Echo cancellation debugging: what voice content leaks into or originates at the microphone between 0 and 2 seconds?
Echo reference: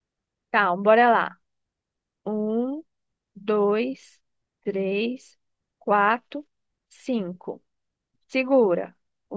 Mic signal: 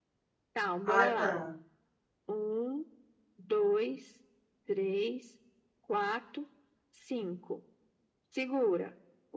both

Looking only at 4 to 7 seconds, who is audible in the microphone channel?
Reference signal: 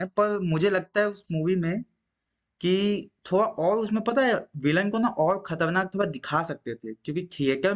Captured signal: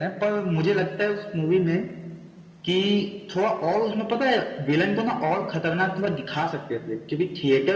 echo only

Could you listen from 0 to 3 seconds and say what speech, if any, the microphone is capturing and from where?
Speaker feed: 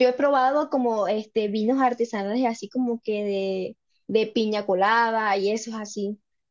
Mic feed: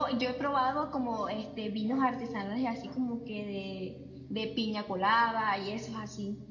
echo only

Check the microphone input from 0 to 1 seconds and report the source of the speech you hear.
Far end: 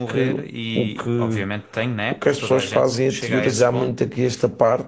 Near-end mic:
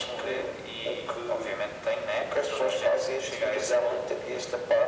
echo only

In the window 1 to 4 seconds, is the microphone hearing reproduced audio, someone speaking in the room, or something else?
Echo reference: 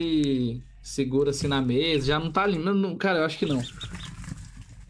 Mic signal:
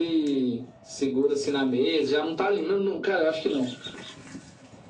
echo only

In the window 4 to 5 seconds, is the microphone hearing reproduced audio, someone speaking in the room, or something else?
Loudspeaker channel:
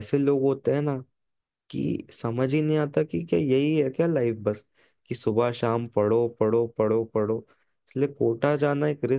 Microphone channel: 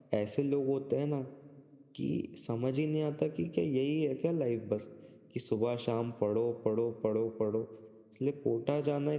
echo only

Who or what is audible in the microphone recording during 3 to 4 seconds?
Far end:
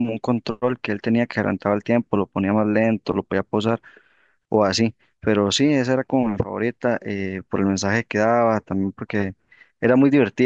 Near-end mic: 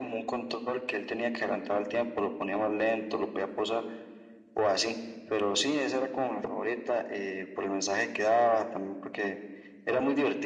echo only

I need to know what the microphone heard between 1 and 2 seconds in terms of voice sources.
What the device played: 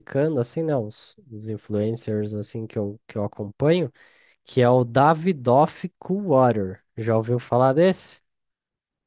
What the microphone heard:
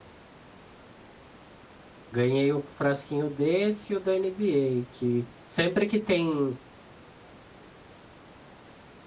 neither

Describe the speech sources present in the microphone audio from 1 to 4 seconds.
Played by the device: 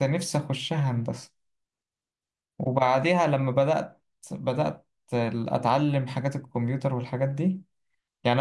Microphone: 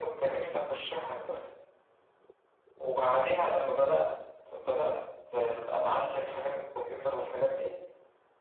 echo only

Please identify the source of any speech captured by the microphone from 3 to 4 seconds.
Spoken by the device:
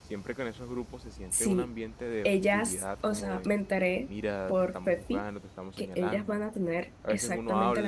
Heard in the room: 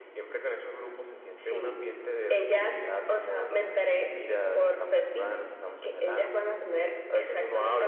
echo only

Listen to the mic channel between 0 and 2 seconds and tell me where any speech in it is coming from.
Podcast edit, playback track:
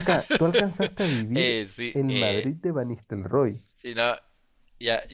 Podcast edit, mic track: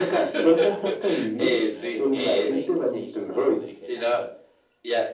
both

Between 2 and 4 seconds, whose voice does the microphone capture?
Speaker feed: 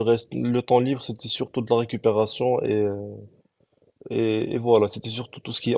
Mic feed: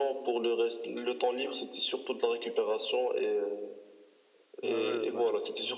echo only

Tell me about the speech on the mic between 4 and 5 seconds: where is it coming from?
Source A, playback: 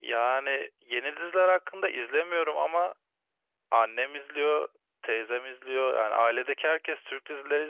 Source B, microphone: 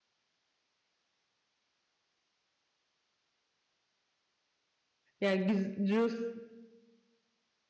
neither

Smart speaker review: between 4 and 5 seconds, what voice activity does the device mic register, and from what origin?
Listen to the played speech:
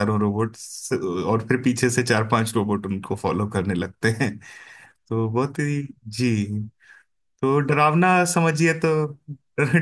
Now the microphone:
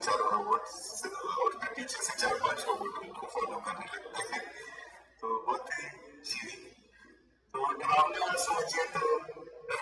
echo only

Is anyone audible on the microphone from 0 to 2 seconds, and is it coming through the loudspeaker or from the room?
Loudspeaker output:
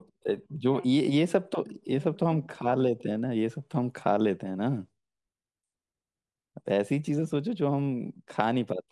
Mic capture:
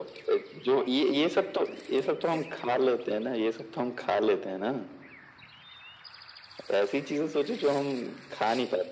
echo only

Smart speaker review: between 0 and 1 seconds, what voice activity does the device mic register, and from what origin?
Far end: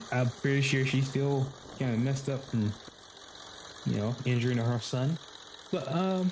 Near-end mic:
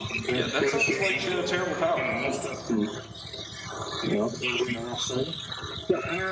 both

